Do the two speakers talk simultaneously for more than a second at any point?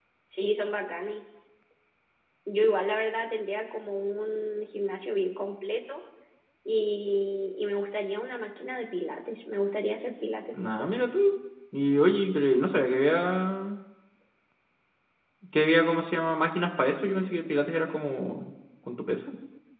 No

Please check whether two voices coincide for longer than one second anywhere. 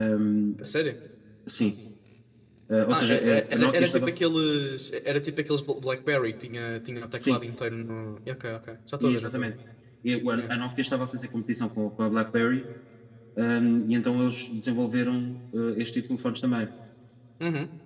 Yes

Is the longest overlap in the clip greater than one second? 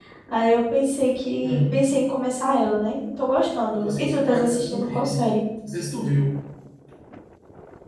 Yes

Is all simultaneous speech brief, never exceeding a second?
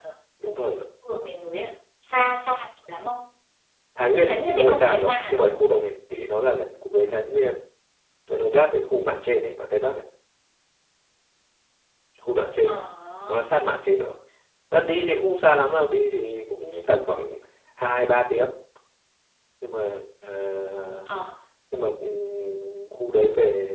No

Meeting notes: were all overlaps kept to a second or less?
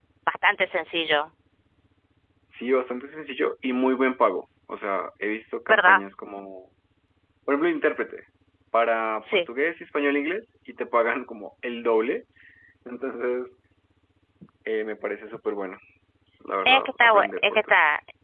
No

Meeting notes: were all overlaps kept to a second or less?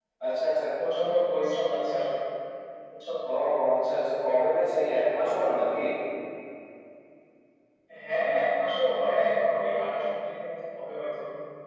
Yes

